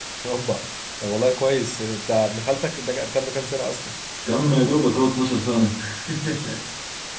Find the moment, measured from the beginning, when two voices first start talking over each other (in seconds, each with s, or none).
none